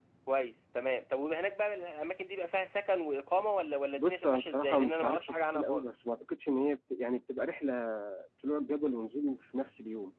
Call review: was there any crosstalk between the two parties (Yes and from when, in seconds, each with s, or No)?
Yes, from 4.0 s